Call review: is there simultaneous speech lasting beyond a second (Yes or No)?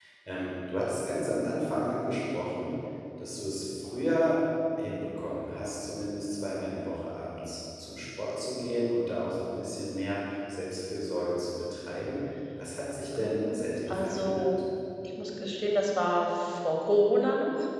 Yes